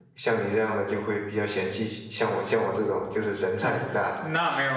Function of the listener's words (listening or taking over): taking over